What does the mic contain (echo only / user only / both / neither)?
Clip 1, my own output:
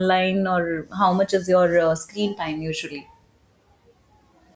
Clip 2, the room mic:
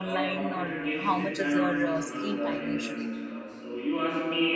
both